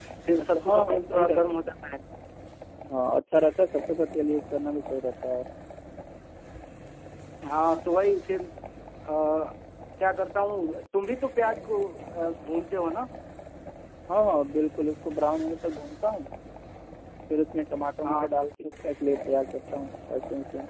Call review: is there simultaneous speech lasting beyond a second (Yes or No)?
Yes